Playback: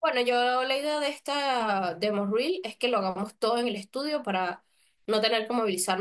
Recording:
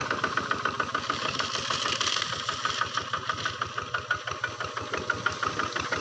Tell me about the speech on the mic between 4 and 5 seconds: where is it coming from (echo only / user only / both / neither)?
neither